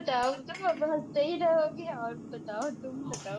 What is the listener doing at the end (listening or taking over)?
taking over